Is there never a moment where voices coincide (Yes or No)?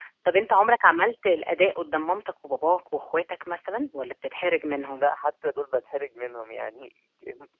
Yes